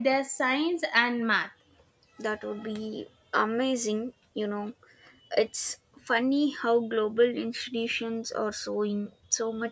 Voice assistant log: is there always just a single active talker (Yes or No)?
Yes